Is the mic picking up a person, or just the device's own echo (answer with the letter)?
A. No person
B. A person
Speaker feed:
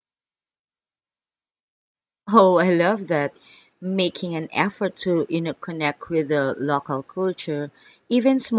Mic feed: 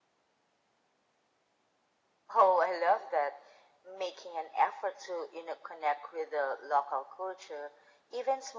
A